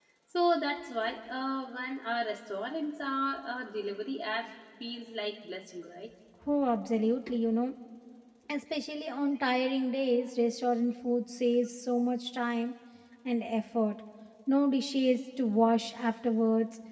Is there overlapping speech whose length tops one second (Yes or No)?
No